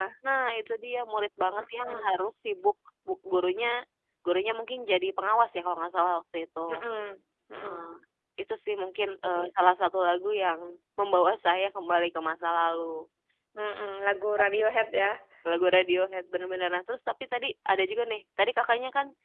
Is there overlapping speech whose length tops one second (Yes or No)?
No